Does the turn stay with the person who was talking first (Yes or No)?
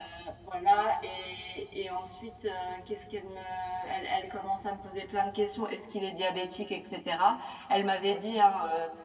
Yes